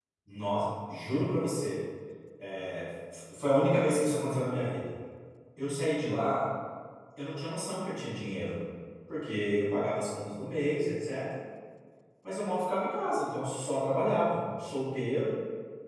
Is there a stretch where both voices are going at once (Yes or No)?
No